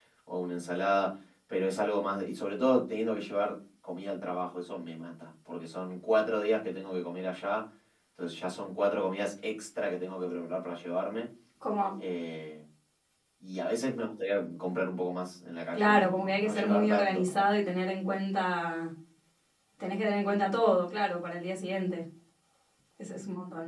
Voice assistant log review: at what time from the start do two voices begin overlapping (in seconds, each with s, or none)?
15.7 s